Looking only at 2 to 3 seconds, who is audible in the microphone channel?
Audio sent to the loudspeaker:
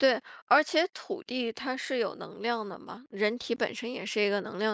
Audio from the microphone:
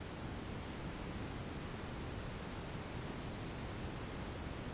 neither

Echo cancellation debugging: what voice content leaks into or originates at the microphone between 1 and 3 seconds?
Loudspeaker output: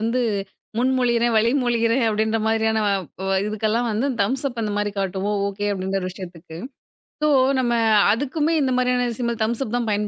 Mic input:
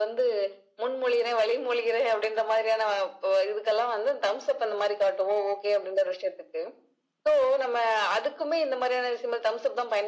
echo only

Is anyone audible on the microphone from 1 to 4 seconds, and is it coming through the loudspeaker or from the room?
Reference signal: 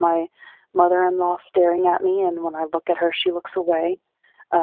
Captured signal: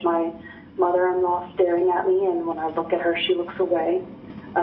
echo only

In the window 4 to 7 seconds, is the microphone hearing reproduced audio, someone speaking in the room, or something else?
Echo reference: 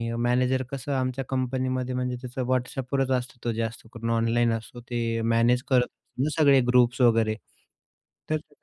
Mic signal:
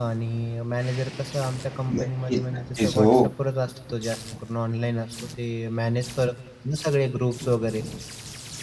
echo only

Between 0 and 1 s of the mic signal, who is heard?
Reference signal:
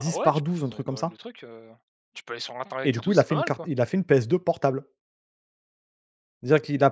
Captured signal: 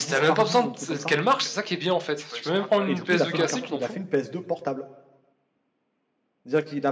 both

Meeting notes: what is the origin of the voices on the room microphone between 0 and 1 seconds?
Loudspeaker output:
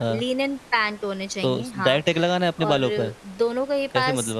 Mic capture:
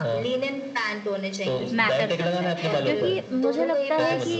echo only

